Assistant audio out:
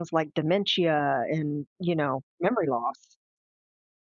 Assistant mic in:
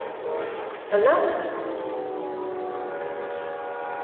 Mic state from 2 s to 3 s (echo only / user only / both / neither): neither